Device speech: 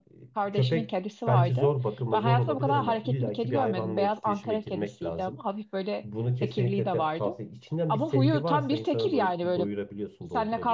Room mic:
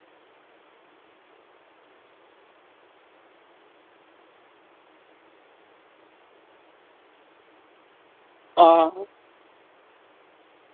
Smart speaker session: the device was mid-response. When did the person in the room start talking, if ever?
8.6 s

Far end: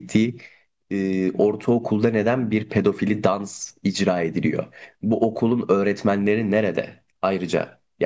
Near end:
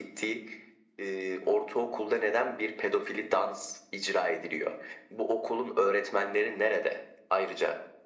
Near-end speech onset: none

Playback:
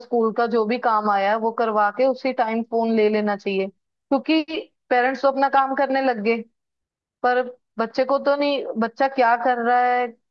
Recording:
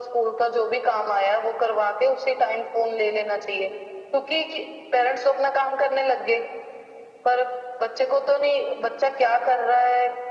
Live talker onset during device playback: none

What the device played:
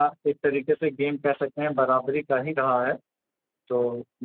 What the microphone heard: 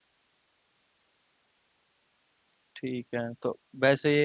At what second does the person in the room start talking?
2.8 s

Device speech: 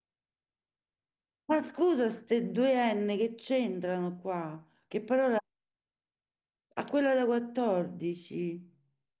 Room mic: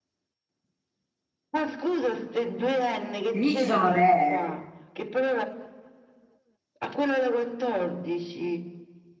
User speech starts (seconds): 3.3 s

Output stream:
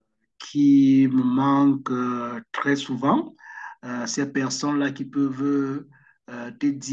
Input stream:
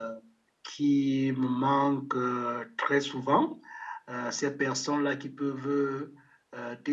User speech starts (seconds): none

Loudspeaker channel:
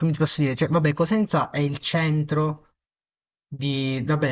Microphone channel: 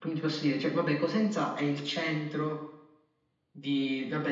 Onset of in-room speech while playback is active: none

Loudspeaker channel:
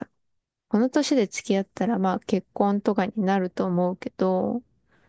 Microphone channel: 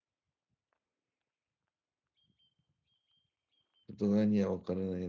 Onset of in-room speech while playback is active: 3.9 s

